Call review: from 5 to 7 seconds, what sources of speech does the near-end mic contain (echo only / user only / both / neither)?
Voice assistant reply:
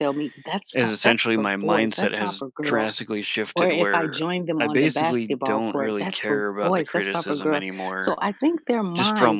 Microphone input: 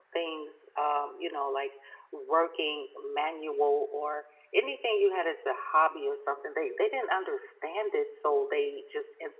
user only